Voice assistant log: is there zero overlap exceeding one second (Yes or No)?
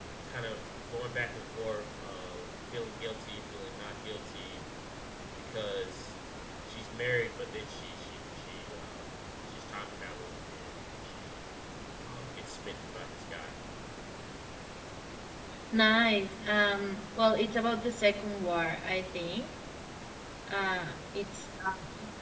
Yes